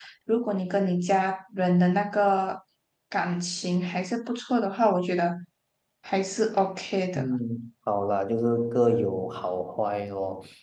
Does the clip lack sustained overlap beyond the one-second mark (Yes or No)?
Yes